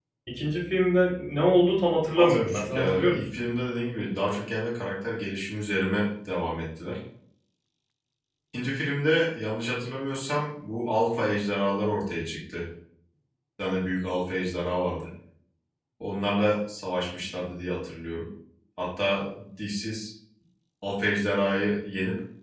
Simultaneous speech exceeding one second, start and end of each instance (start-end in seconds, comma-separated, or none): 2.2-3.4